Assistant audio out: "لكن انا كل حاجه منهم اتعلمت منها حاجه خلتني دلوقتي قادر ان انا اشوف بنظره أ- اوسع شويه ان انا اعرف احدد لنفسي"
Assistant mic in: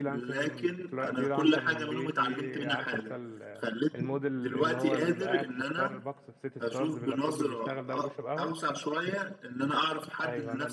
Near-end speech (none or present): present